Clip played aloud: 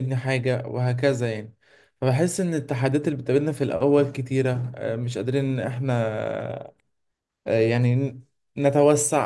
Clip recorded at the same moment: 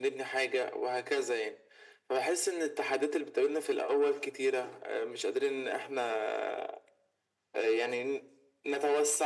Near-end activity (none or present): none